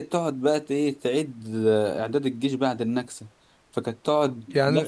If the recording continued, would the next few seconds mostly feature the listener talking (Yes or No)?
No